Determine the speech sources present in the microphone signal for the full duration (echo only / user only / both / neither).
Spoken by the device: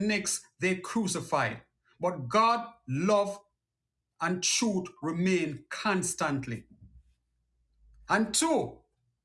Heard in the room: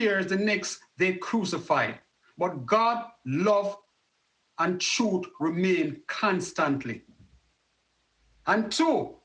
echo only